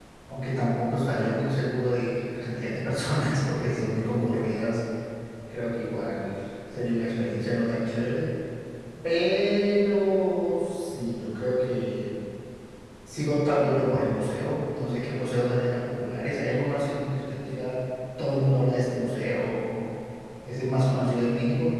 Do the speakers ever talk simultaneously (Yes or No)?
No